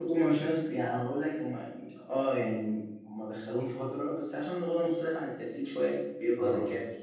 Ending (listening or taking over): taking over